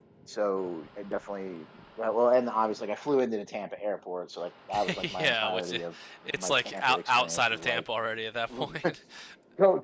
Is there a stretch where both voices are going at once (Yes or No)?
Yes